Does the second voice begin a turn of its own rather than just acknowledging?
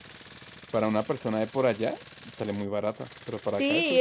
Yes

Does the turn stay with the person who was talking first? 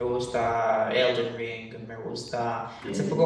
Yes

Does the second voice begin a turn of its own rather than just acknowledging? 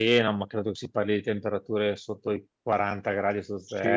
Yes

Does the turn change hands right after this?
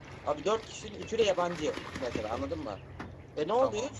No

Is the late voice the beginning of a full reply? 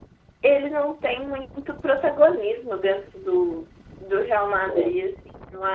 No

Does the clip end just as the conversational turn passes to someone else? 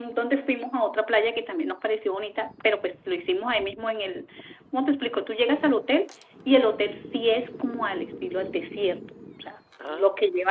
No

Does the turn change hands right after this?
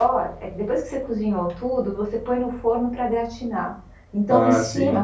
No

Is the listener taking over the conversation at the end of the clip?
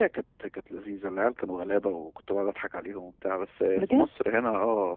No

